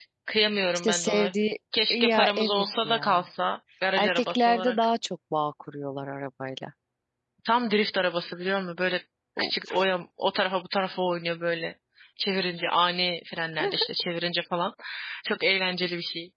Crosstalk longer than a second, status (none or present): present